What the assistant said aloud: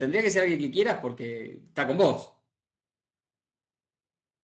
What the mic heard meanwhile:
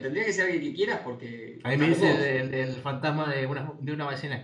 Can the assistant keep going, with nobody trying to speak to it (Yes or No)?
No